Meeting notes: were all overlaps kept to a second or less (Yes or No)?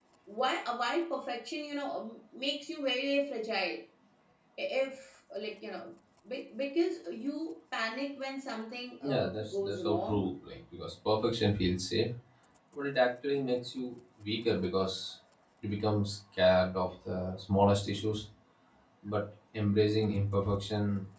No